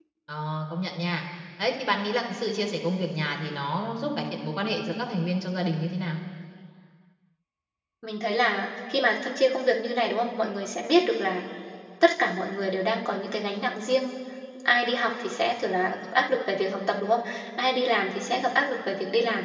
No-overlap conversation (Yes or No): Yes